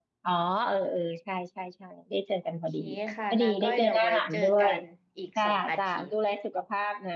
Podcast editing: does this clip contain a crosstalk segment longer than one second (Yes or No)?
Yes